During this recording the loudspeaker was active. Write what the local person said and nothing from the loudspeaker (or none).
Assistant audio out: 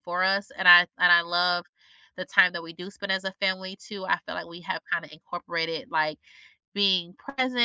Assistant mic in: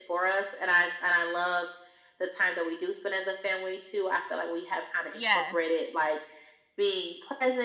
"Yes."